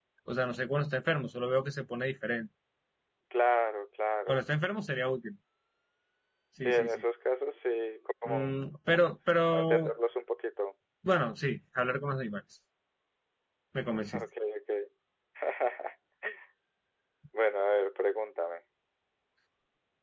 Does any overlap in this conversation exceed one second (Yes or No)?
No